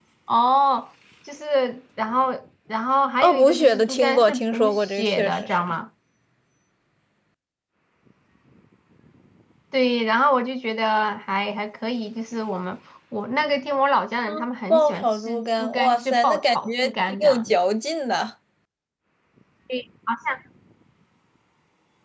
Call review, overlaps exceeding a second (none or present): present